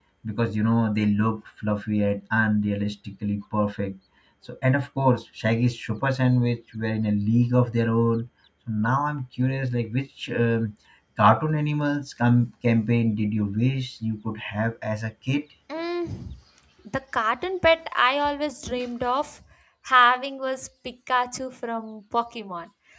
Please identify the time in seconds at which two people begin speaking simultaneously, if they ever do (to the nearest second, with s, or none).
none